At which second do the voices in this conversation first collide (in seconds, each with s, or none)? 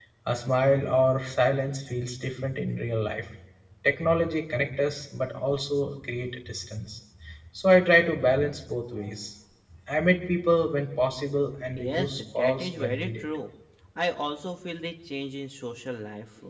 11.8 s